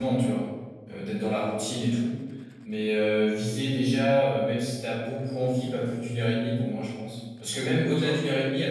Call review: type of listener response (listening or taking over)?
listening